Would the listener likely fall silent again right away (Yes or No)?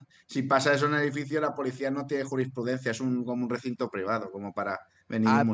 No